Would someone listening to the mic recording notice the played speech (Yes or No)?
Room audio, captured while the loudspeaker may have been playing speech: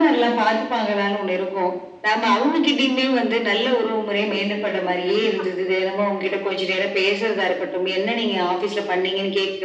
Yes